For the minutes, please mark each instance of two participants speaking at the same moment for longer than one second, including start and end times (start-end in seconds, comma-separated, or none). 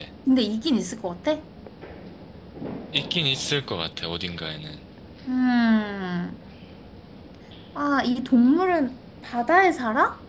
none